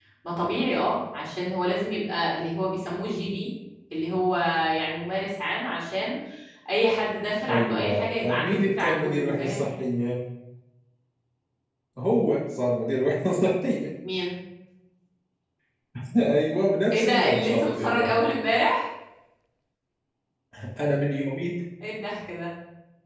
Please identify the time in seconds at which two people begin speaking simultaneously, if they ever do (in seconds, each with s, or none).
7.5 s